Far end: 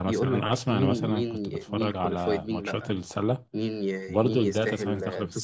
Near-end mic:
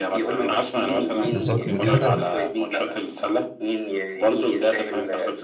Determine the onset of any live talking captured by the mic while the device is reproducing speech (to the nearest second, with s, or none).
1 s